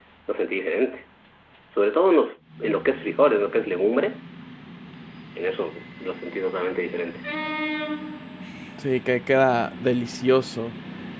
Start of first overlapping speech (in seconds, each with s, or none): none